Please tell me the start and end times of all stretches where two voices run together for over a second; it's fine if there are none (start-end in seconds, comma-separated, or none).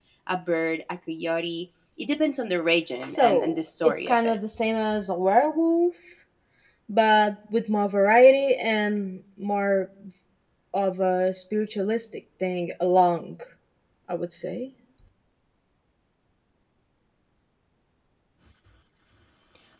3.0-4.4